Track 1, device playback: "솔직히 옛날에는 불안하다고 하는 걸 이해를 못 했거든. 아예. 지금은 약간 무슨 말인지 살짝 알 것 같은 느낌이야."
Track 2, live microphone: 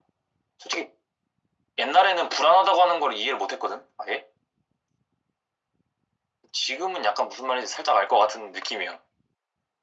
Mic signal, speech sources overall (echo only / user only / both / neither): echo only